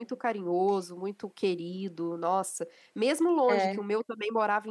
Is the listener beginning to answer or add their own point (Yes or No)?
No